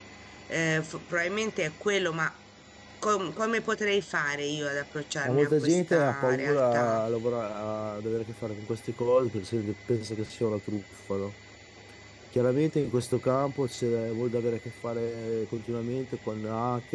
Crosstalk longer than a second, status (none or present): present